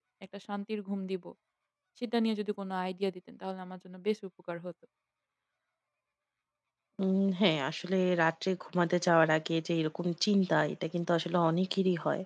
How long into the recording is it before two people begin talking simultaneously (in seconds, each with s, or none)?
none